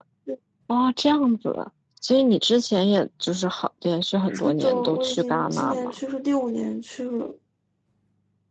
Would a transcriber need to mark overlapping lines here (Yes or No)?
Yes